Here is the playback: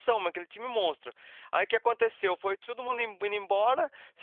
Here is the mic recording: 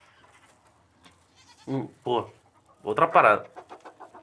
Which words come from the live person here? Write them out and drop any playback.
Hum, pô. Outra parada.

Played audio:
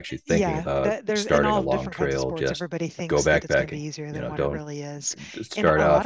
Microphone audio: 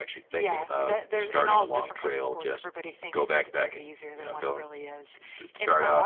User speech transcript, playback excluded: none

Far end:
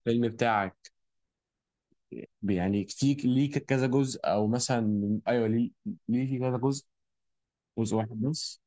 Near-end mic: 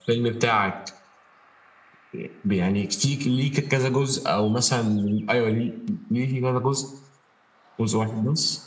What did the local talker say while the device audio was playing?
none

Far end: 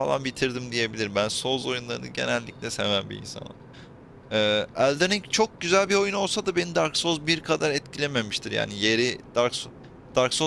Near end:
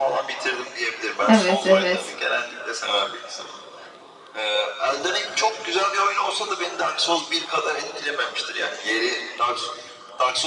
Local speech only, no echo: Evet, evet.

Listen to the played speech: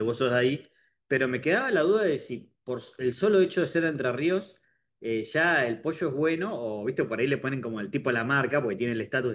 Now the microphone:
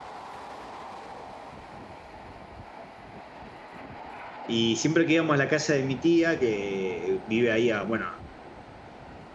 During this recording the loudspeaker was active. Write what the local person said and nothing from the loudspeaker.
Y siempre que íbamos a la casa de mi tía, que vive ahí a, bueno,

